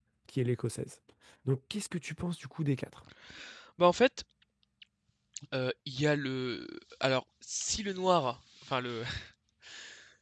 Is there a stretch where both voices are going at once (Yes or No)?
No